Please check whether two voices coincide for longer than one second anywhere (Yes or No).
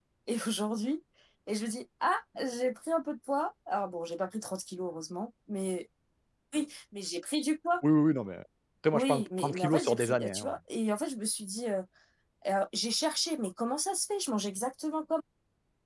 Yes